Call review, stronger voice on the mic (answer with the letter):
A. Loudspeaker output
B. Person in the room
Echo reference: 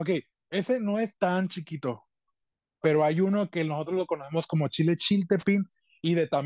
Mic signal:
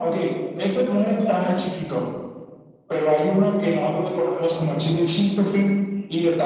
A